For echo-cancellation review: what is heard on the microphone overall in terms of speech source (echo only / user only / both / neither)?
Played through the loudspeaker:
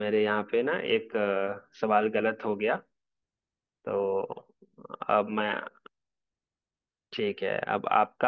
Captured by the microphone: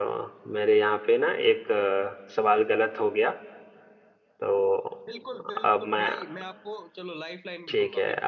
both